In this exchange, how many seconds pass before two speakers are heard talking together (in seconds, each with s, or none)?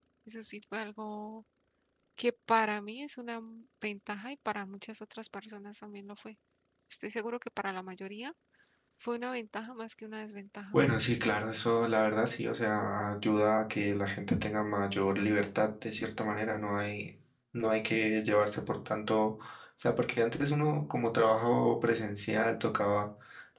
none